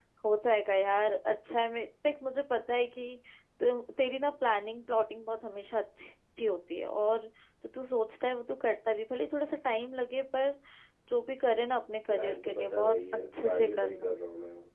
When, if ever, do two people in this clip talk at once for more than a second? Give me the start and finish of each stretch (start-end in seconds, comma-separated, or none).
12.1-14.1